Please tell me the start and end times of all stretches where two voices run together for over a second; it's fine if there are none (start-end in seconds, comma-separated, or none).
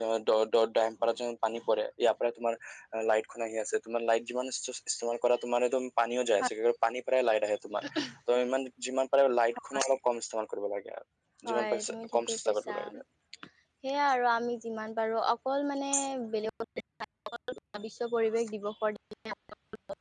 11.5-12.8